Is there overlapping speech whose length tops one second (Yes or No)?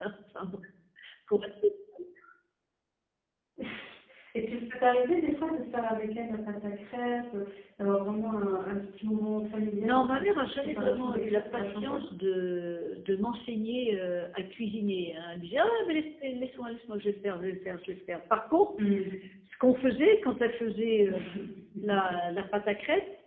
Yes